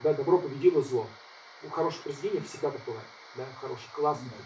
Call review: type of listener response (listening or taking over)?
listening